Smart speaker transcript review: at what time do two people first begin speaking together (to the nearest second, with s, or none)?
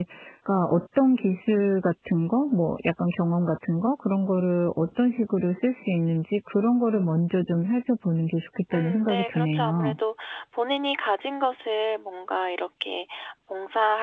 9 s